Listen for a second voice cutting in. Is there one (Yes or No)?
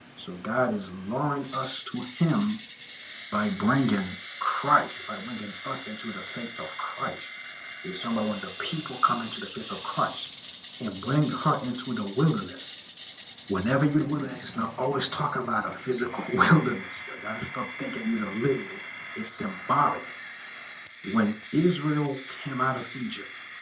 No